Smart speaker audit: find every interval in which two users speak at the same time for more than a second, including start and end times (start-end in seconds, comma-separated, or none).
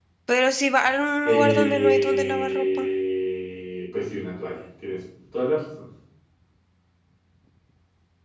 1.2-2.9